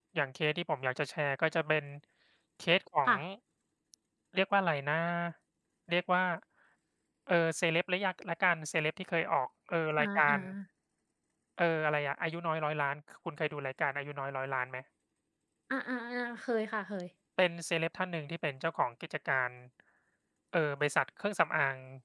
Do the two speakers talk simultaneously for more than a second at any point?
No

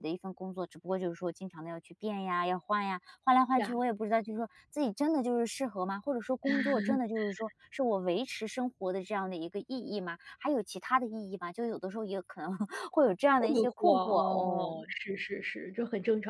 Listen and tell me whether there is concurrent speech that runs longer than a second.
Yes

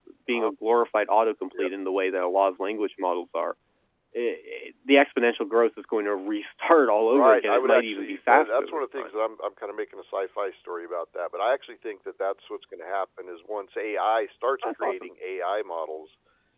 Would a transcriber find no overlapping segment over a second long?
No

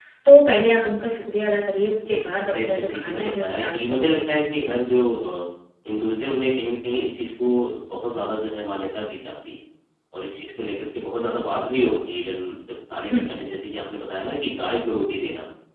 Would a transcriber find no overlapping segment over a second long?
No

